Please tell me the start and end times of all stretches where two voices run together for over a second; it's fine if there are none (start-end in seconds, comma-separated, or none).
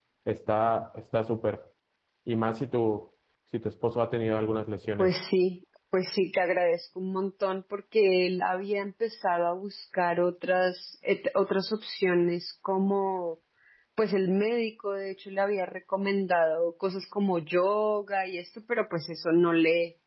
none